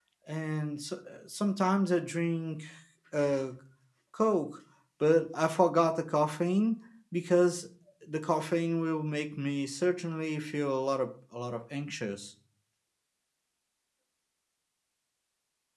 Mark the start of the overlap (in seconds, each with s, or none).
none